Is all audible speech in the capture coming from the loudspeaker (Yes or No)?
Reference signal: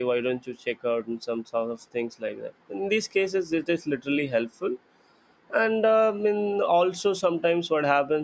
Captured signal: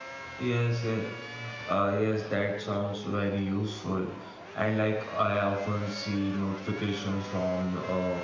No